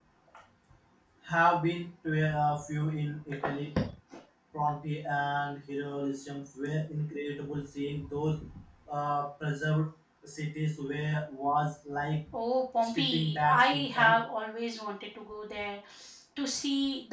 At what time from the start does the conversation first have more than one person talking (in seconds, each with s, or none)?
12.8 s